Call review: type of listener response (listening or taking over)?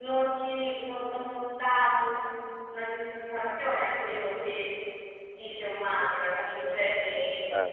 listening